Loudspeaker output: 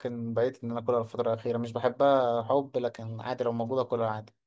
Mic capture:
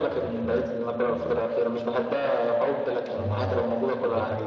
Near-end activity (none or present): present